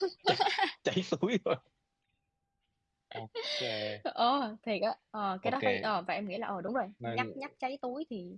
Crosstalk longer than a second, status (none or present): none